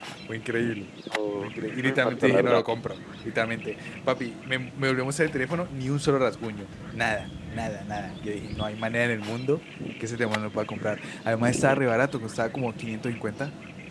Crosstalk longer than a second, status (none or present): present